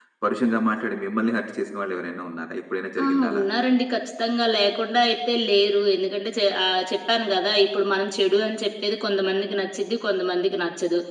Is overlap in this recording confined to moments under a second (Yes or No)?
Yes